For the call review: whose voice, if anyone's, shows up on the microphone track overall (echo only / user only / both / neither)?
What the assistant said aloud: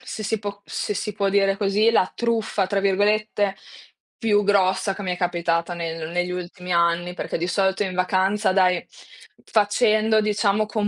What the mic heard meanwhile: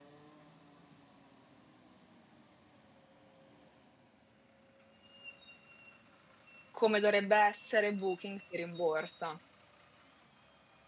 user only